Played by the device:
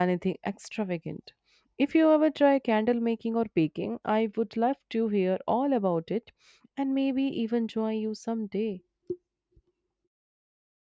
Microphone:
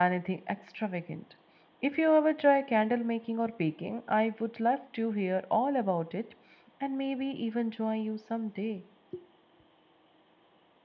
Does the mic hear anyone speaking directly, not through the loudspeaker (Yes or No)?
No